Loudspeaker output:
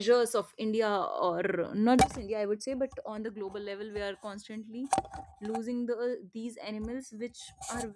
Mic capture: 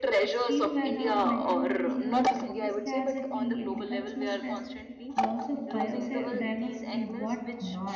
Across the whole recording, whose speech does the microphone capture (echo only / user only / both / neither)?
both